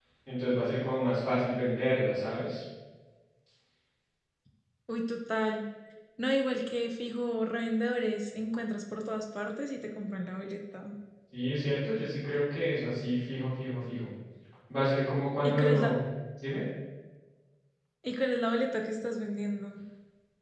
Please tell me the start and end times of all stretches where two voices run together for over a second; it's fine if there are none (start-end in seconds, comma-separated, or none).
none